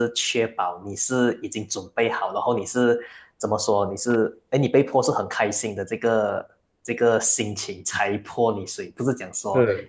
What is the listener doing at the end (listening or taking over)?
listening